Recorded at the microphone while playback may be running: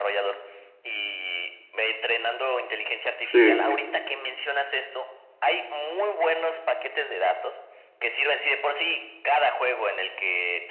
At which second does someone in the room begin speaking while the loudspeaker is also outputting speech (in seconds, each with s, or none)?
3.2 s